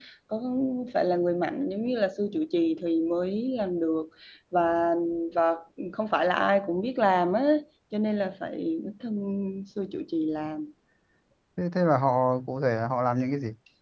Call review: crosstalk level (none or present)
none